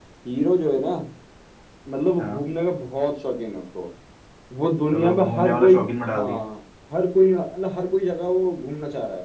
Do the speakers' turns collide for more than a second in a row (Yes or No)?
Yes